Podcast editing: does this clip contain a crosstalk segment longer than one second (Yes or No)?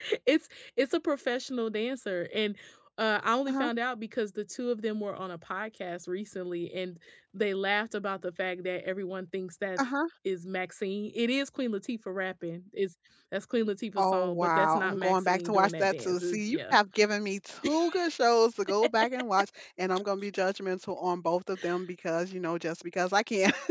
Yes